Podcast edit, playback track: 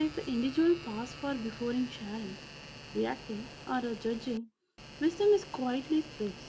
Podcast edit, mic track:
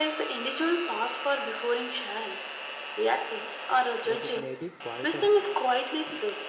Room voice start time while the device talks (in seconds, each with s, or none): 4.0 s